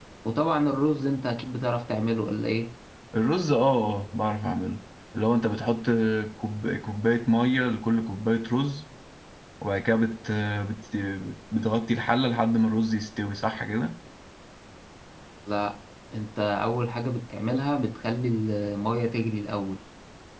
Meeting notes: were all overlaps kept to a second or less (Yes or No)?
Yes